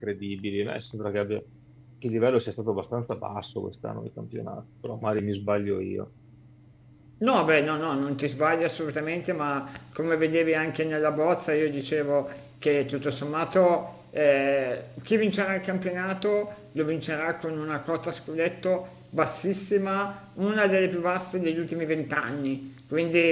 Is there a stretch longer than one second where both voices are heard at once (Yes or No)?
No